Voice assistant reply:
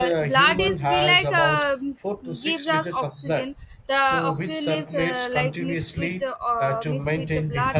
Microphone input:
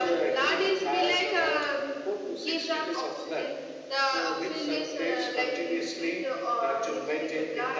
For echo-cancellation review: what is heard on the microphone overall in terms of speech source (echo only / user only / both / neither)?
echo only